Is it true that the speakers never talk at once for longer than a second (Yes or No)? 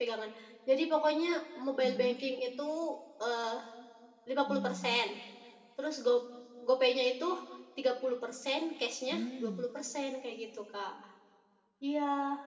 Yes